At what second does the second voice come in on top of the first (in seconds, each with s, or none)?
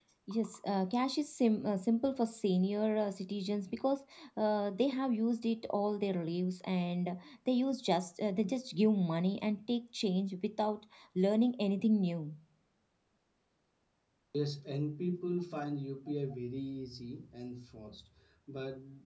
none